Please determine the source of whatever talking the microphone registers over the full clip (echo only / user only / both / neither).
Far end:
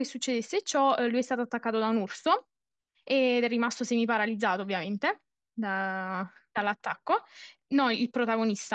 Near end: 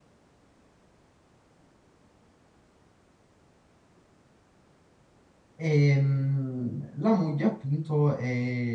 user only